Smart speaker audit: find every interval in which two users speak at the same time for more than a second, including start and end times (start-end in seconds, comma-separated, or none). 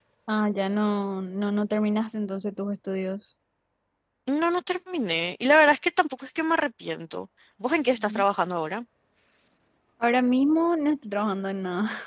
none